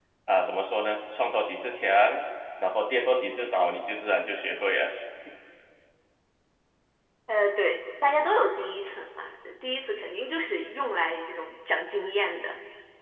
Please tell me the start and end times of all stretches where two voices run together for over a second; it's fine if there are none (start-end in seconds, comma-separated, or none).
none